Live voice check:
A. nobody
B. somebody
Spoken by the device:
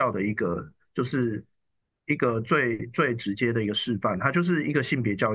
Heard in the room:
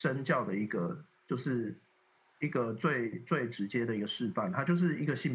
A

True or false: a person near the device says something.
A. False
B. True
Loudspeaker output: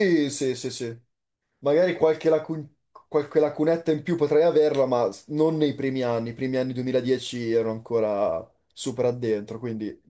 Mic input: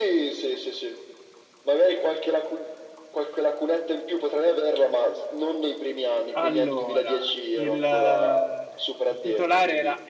B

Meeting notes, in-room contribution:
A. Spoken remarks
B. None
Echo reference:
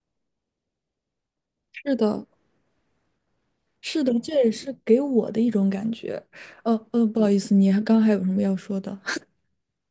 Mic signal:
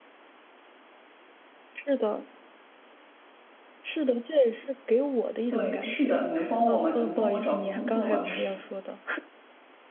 A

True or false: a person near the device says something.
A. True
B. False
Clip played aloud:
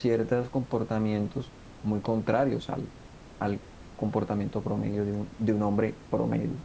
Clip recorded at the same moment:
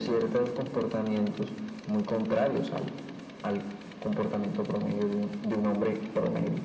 B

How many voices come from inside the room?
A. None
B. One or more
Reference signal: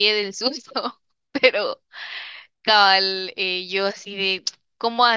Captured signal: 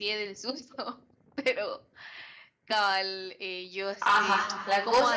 B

